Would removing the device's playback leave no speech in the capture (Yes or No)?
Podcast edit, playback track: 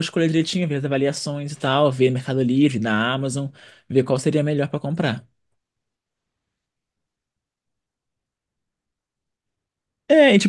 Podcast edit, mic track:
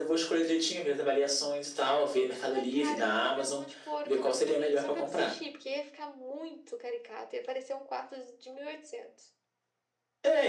No